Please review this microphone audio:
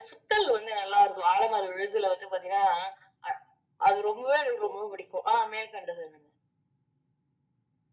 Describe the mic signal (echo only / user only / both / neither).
echo only